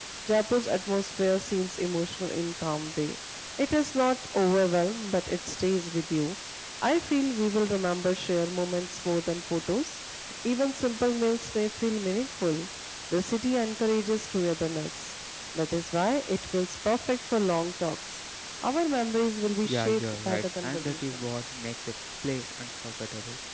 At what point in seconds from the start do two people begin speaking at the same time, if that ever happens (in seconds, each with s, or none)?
19.6 s